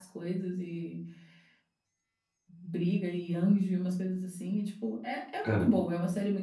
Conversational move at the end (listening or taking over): listening